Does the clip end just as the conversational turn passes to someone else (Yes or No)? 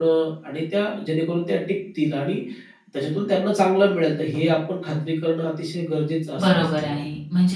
Yes